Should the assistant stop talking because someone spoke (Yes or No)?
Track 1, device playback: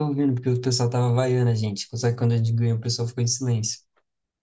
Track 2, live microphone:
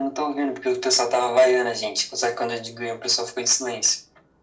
No